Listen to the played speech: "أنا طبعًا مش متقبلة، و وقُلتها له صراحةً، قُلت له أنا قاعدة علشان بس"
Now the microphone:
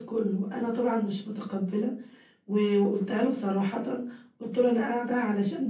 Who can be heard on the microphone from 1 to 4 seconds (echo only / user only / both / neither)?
echo only